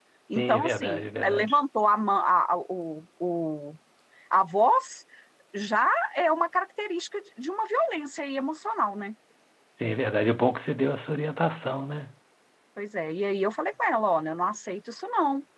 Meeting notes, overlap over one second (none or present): present